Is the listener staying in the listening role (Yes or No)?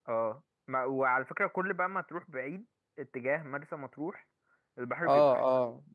No